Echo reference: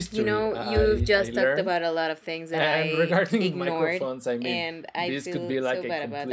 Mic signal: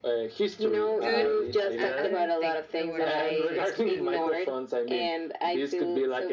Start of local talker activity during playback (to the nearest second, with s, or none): 1 s